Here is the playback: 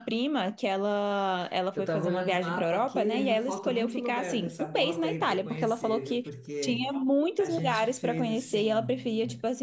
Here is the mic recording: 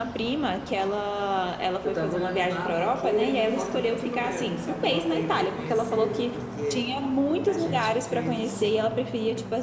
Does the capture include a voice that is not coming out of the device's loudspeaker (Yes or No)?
No